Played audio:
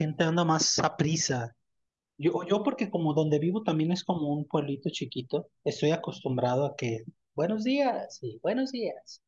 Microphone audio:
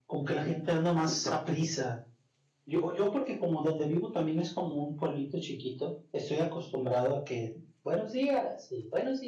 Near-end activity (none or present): none